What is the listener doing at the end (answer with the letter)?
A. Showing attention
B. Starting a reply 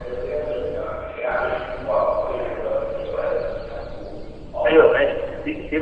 B